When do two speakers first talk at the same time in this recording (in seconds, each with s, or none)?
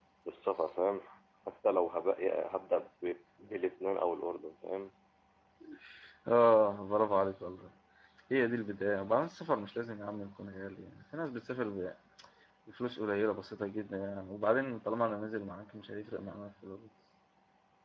none